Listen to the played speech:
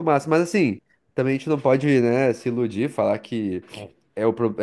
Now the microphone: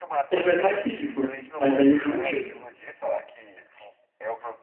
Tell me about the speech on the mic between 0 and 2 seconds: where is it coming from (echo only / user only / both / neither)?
both